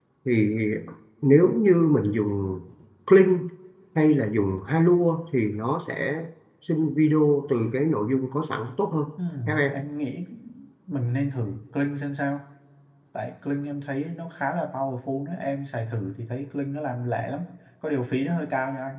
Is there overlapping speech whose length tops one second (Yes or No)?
No